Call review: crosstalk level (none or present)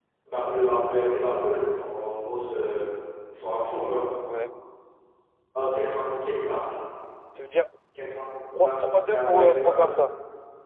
present